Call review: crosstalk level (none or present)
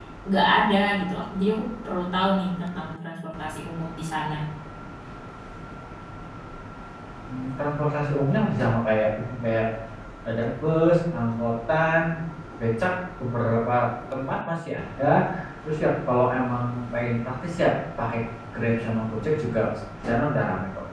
none